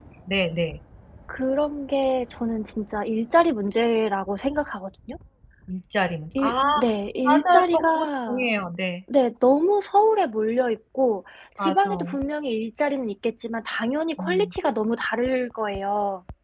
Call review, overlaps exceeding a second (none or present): present